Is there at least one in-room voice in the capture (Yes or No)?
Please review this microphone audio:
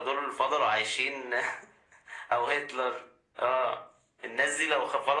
No